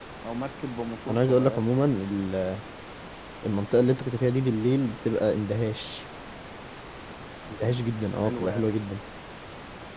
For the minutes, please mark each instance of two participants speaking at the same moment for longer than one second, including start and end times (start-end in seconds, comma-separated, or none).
none